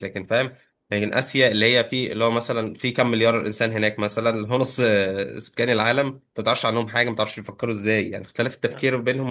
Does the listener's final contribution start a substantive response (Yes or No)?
No